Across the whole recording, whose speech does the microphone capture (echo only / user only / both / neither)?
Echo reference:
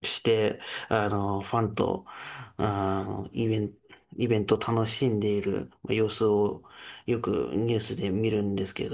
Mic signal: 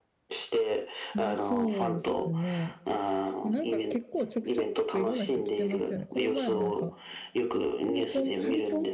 both